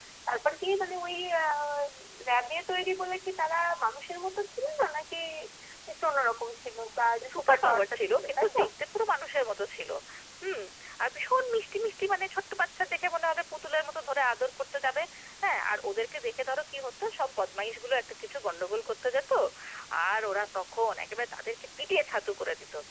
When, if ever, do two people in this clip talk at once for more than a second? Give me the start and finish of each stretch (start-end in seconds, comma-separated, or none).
7.3-8.6